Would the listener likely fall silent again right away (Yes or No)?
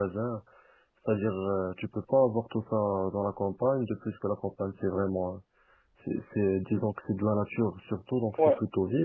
No